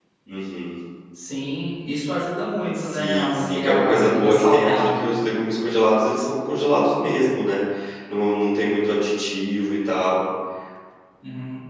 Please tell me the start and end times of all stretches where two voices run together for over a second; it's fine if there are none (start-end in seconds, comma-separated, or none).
2.7-5.1